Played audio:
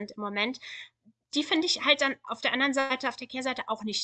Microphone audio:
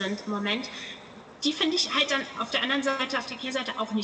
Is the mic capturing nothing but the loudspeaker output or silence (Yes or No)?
Yes